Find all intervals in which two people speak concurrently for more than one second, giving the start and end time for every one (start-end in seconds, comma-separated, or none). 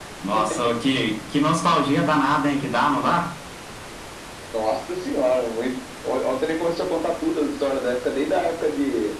none